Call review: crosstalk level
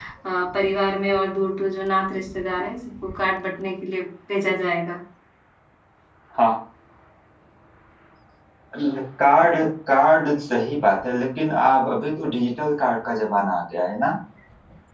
none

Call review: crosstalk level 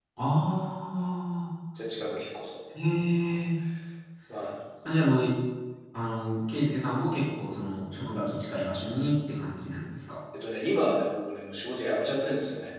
none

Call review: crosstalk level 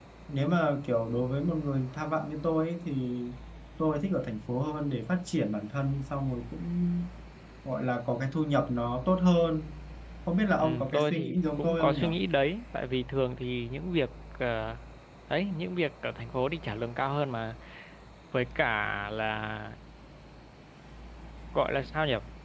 present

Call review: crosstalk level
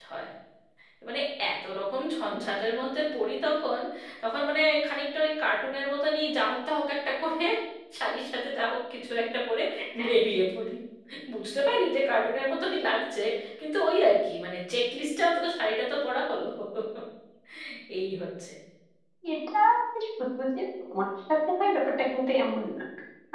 none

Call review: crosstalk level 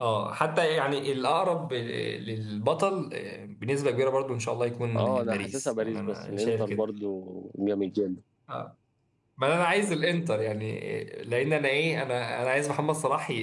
present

